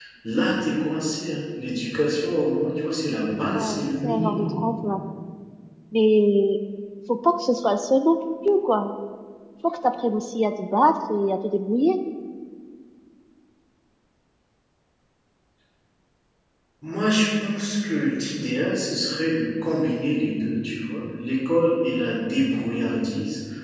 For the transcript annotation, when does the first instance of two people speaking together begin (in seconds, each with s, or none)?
3.5 s